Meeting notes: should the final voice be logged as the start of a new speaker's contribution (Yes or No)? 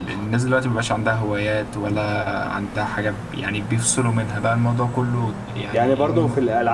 Yes